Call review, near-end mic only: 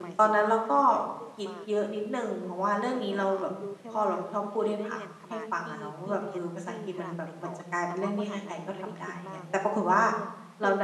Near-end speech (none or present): present